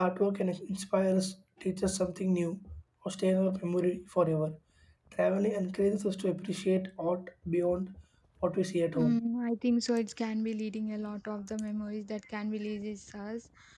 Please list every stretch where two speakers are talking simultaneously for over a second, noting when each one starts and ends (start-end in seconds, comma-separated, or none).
none